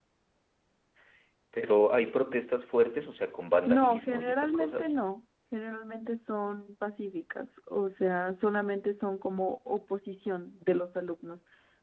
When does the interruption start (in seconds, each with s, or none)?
3.7 s